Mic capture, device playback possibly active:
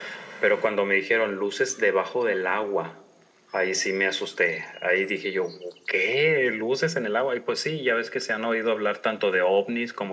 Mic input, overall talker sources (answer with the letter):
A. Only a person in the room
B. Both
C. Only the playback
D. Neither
C